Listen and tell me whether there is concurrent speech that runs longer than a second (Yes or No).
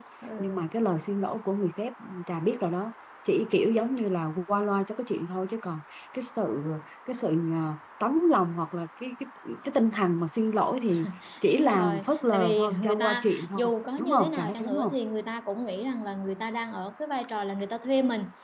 Yes